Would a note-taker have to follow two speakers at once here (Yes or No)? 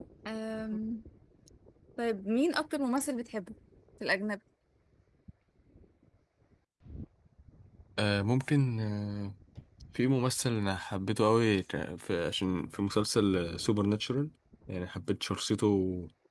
No